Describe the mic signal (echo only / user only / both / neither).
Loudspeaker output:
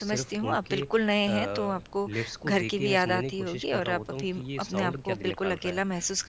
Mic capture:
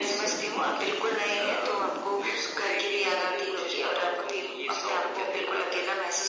echo only